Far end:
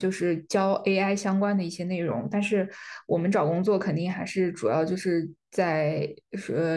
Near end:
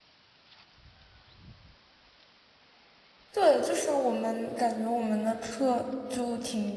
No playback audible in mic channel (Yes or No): Yes